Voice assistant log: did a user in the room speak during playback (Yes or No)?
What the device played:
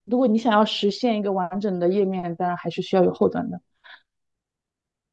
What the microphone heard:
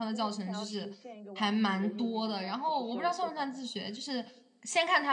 Yes